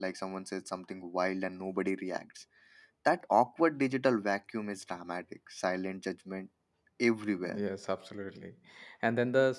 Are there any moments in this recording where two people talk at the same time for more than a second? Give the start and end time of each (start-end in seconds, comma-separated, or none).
none